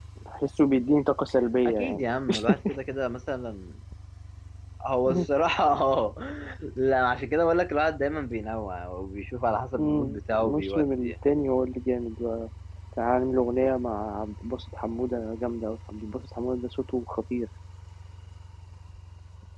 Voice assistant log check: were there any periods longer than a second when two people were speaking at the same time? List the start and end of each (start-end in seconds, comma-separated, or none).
9.8-11.1